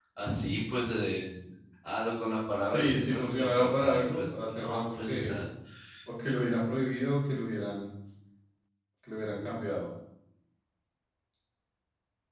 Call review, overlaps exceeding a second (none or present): present